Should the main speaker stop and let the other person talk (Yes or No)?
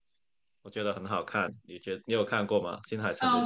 Yes